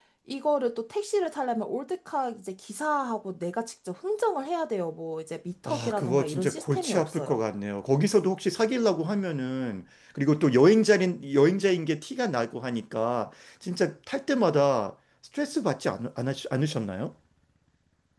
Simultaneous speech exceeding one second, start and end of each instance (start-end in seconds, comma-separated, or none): 5.7-7.4